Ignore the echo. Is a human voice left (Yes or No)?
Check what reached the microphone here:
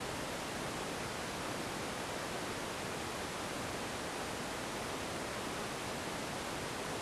No